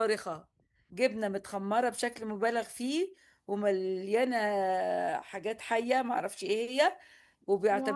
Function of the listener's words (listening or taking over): listening